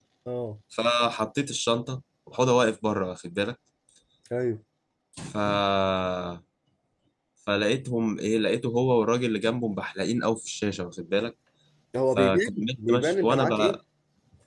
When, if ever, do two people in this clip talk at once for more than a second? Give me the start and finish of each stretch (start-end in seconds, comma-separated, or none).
12.2-13.8